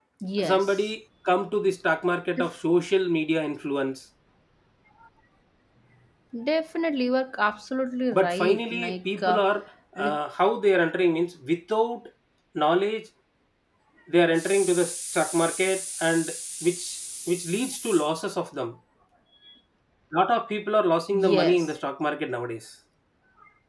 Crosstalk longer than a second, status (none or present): present